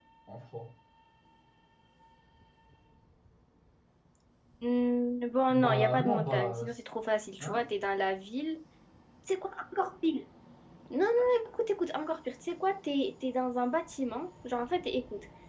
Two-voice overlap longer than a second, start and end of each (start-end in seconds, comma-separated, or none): 5.5-6.7